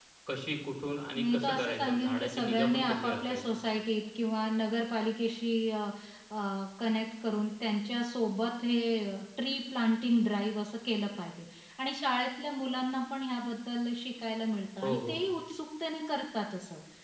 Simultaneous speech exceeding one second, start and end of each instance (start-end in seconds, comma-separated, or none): 1.2-3.6